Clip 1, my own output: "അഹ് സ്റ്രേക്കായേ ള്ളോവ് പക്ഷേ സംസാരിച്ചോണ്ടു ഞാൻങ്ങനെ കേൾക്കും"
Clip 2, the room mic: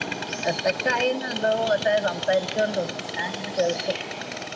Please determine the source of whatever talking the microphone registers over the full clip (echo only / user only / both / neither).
echo only